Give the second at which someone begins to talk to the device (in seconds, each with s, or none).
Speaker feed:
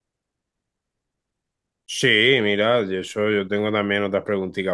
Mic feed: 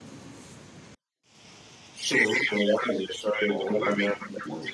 3.4 s